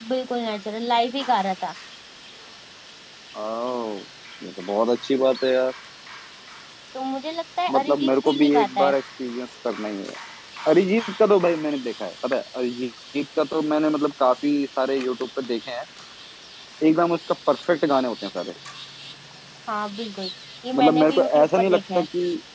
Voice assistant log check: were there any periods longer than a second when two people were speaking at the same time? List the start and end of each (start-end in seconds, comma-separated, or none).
7.7-9.0, 20.7-22.0